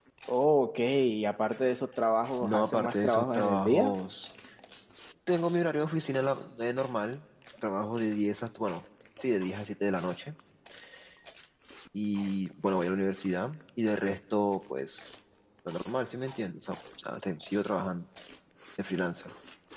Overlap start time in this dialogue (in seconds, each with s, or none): 2.4 s